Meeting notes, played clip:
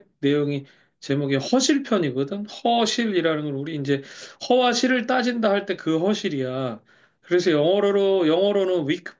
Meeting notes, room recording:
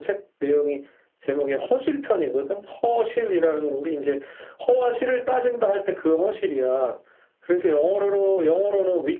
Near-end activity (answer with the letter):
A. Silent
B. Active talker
A